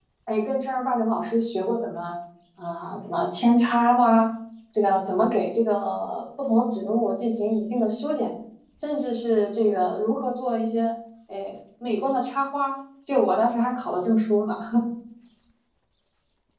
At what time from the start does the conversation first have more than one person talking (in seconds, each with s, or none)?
none